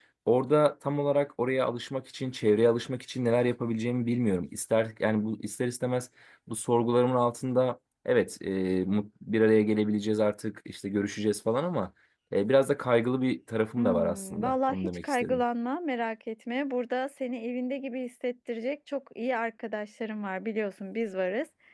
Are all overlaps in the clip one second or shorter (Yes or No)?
No